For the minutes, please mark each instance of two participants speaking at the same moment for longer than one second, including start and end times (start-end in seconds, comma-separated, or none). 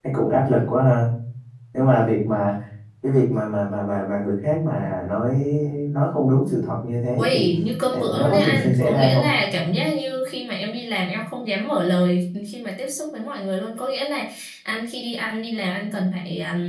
7.9-9.2